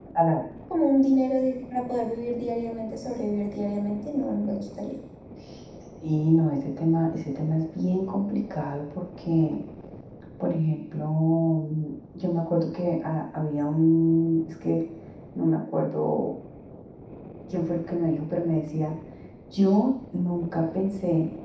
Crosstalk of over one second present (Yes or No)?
No